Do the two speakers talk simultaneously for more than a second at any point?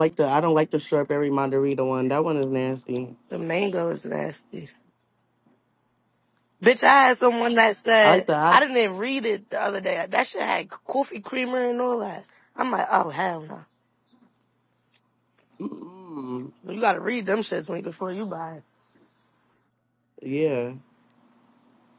No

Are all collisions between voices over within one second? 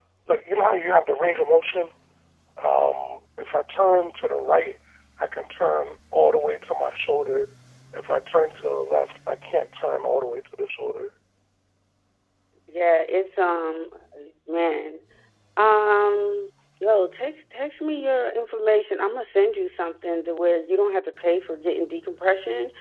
Yes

